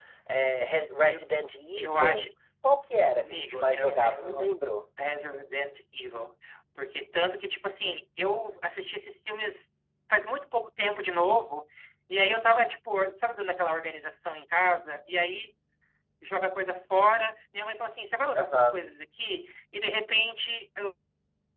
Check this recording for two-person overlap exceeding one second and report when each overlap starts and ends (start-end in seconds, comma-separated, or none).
3.2-4.5